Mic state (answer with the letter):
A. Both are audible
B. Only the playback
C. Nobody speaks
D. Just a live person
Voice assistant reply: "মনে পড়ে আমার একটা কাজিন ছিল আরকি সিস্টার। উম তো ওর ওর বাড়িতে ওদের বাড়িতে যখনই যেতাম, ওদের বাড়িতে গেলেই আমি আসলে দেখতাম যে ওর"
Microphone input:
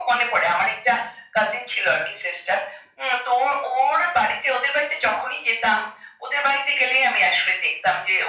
B